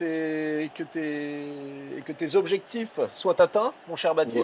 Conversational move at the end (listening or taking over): taking over